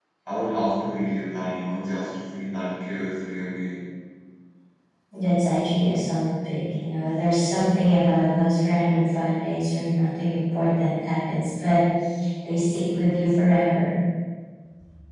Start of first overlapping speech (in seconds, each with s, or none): none